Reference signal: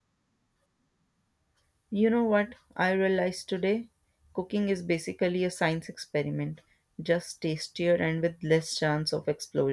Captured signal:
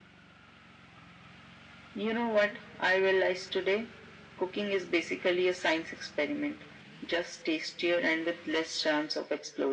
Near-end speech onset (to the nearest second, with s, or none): none